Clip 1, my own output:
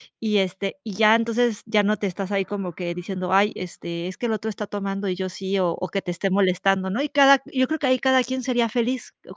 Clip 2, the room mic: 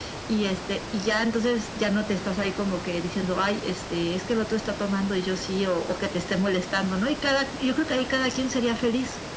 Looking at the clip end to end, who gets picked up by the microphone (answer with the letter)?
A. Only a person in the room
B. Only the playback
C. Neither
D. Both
B